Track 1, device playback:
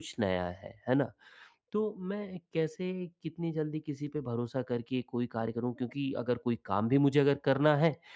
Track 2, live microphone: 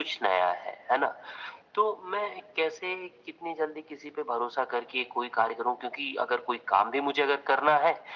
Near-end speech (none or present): none